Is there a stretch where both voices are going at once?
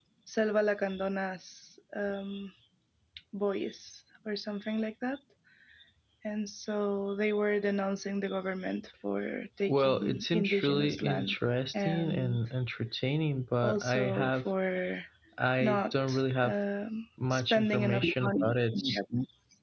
Yes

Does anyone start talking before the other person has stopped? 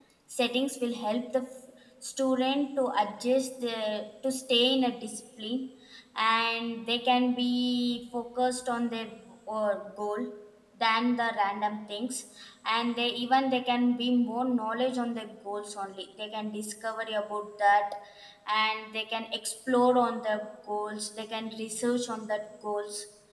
No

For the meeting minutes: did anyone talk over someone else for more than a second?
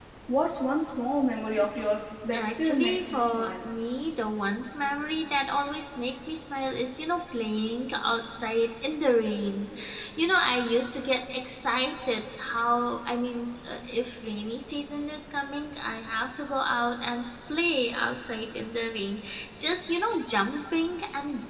Yes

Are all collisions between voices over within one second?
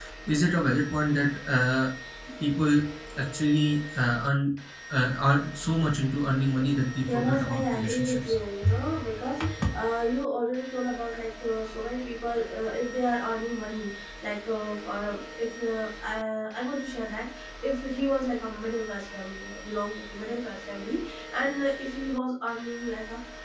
No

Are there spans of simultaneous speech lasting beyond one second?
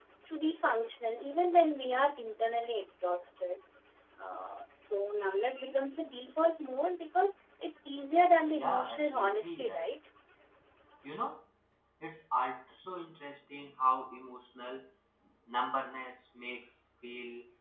Yes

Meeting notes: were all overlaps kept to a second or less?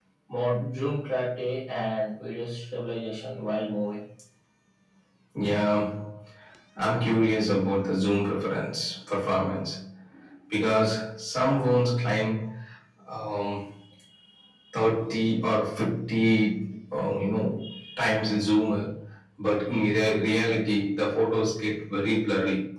Yes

